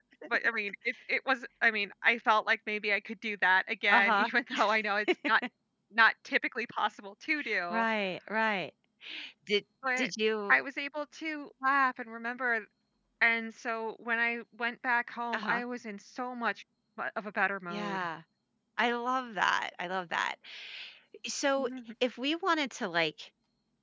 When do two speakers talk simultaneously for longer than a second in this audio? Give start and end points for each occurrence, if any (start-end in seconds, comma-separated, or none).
none